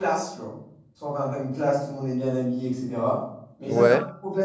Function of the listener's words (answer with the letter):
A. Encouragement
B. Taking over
A